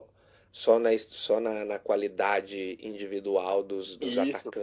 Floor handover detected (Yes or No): Yes